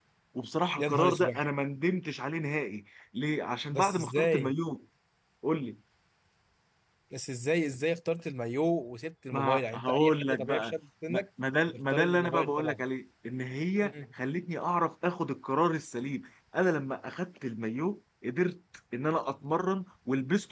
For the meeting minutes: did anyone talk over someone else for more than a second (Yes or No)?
Yes